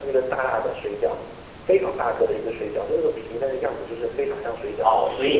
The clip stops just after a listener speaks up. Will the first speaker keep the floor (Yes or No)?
No